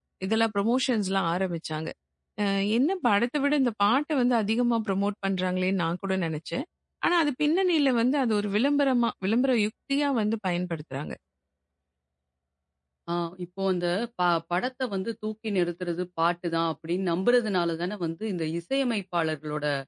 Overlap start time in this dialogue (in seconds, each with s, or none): none